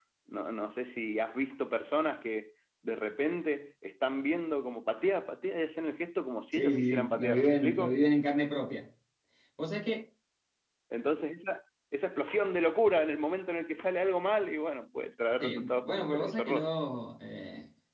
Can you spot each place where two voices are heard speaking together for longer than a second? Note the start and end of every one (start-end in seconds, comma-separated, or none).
6.5-8.0, 15.4-16.7